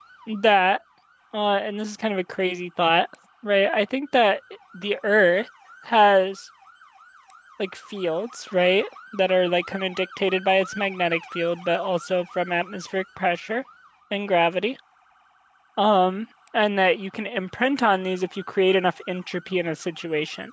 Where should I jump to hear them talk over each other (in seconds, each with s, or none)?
none